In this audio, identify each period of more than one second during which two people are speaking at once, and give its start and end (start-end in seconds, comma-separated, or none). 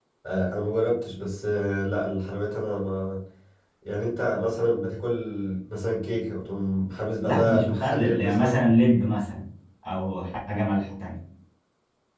7.2-8.6